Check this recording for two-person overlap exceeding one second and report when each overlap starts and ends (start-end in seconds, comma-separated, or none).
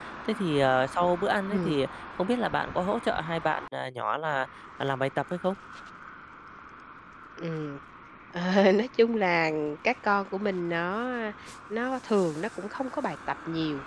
none